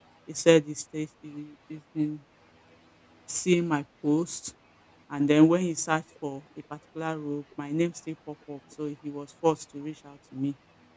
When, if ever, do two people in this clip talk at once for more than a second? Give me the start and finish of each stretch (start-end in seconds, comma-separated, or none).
none